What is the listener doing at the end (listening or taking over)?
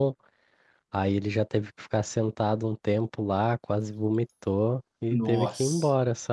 listening